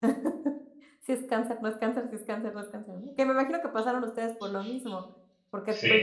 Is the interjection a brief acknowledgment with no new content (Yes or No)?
Yes